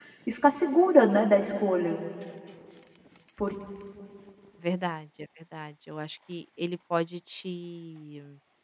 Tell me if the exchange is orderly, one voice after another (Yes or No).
Yes